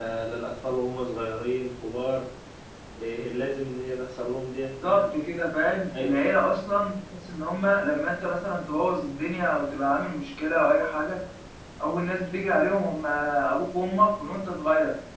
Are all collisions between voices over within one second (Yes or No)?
Yes